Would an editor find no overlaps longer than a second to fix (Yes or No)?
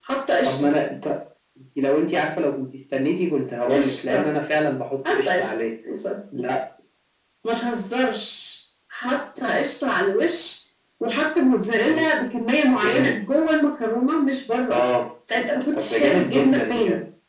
No